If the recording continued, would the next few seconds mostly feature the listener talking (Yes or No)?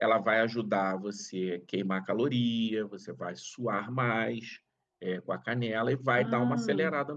No